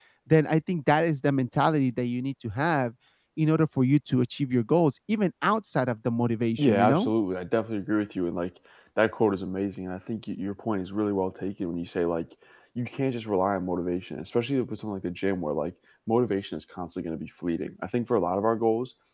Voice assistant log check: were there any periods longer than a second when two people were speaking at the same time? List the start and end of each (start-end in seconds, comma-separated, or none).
none